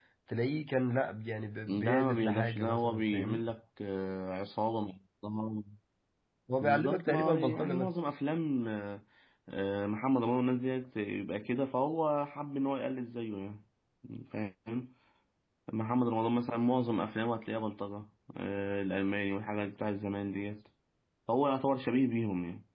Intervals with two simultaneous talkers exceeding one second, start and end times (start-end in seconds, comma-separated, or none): 1.7-3.4, 6.6-7.9